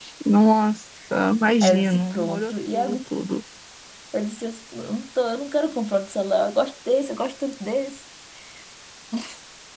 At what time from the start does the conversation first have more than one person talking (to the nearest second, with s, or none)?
2 s